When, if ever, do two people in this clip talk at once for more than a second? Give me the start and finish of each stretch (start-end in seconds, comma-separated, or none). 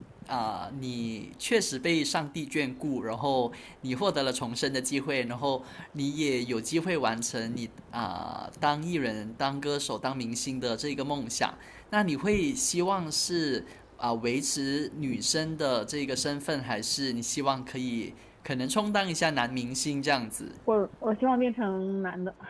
none